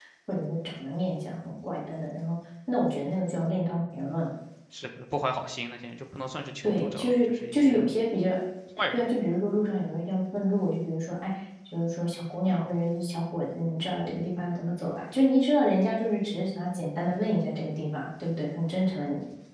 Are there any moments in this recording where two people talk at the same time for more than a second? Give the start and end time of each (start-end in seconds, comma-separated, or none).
6.6-7.9